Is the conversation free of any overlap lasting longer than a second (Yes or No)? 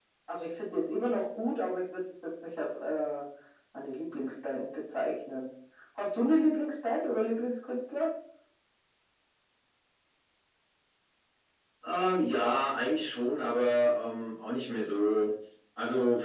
Yes